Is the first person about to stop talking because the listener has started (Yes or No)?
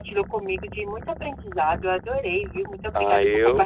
Yes